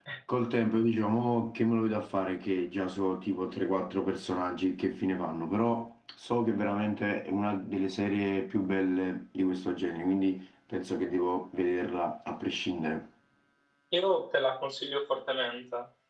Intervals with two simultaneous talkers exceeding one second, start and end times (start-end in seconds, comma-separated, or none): none